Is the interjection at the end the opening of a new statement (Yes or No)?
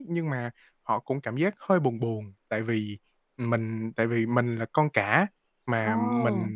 No